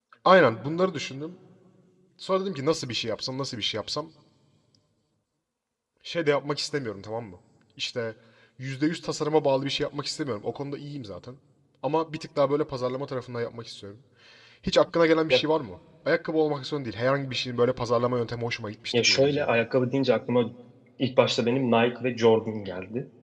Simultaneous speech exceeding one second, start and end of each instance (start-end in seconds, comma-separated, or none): none